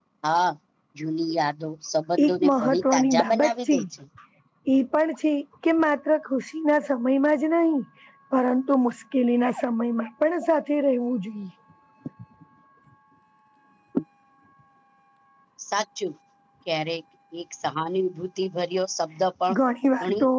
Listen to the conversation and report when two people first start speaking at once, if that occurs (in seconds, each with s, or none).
2.2 s